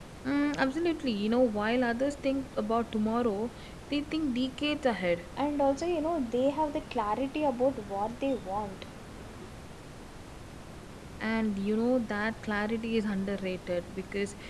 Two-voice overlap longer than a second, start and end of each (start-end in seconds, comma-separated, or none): none